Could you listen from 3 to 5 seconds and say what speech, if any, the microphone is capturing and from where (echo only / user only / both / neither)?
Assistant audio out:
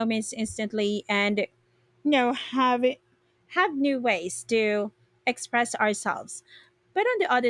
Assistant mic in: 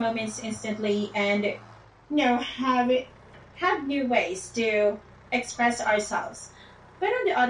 echo only